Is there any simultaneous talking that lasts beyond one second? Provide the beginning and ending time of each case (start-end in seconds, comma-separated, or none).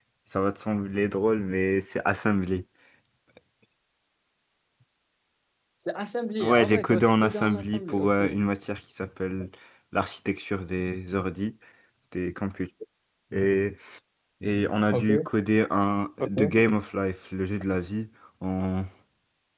6.4-8.2